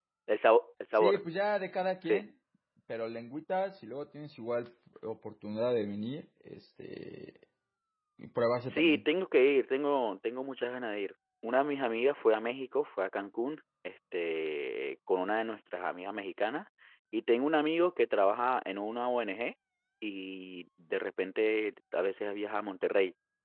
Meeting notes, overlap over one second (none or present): none